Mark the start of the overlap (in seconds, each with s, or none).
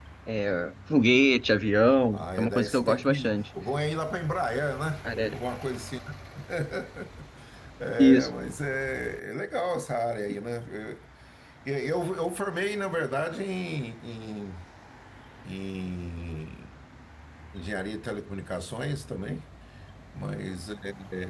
2.1 s